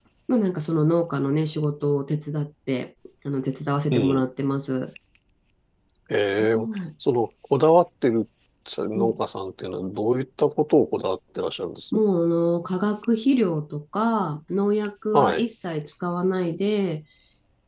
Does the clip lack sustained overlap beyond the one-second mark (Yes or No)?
Yes